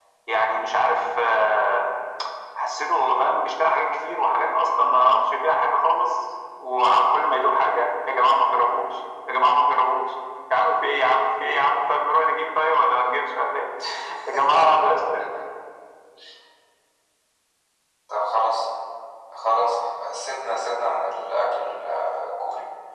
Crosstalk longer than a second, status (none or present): none